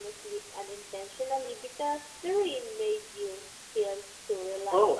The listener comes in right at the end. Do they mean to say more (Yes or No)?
Yes